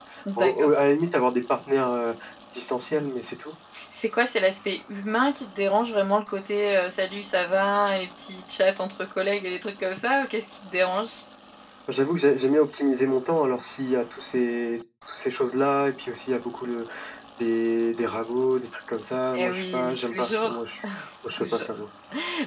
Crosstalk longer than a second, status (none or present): present